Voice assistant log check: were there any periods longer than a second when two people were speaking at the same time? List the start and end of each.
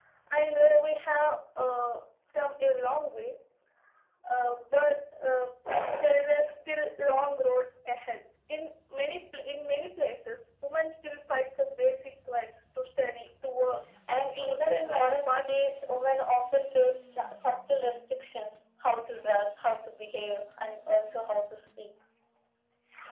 14.2-15.7

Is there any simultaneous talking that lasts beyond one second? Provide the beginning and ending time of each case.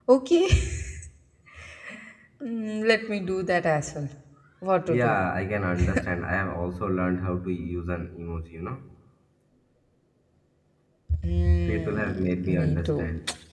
11.7-13.0

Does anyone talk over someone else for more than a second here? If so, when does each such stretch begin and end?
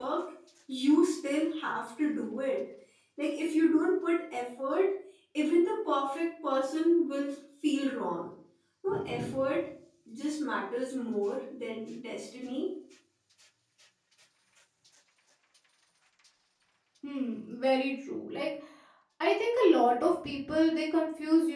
none

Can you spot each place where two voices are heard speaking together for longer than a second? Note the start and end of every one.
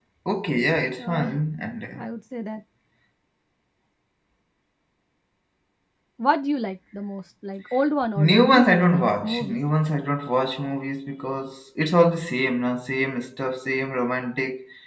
8.2-9.6

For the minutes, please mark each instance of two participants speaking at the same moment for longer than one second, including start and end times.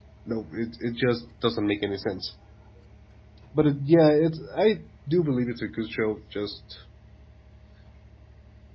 none

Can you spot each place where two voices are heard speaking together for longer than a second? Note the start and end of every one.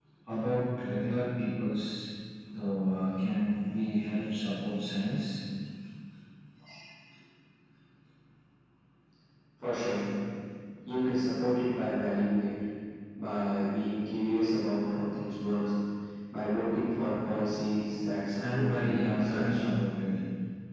18.4-19.6

